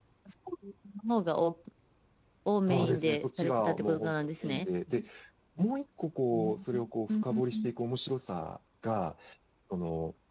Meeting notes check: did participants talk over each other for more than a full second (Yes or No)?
Yes